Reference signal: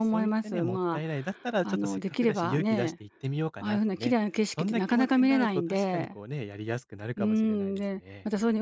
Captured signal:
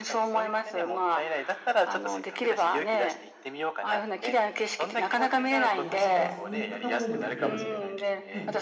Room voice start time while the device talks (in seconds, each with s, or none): 5.7 s